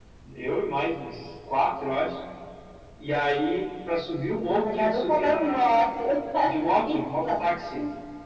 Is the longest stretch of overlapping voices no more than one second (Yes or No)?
No